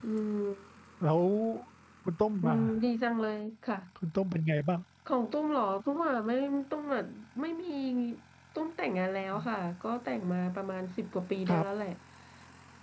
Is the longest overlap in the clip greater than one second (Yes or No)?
No